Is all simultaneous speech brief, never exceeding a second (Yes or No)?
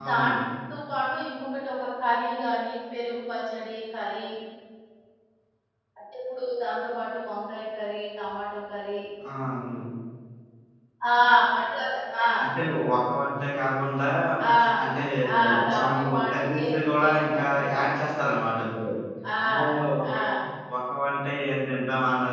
No